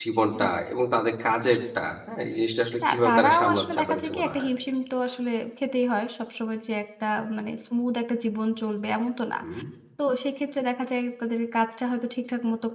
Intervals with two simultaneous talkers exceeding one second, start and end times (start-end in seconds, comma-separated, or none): 2.9-4.5